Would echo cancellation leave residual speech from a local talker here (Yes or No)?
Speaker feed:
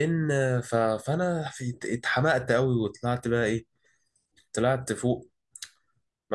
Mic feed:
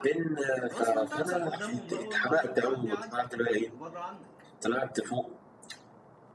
Yes